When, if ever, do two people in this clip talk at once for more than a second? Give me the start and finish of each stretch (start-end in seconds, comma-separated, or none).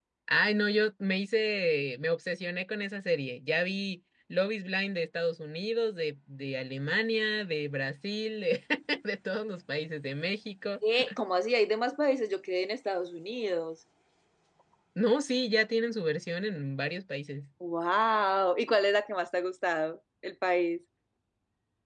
none